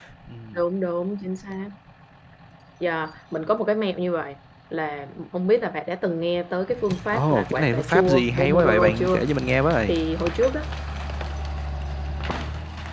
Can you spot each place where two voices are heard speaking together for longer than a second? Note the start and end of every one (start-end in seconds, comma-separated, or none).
7.1-9.2